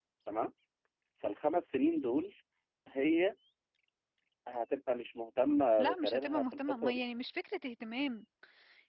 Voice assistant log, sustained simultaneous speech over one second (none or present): present